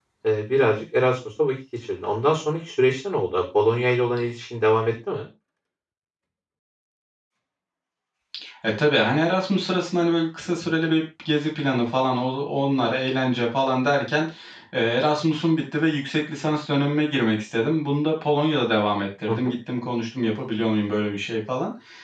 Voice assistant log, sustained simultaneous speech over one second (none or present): none